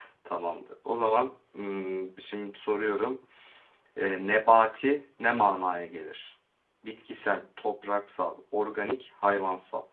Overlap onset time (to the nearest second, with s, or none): none